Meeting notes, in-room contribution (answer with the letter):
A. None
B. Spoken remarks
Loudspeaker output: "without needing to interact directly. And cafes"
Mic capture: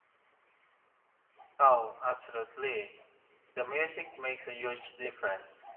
B